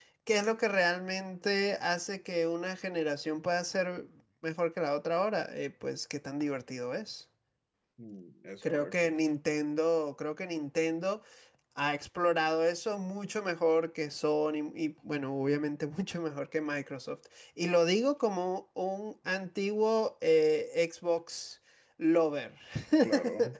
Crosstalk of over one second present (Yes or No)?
No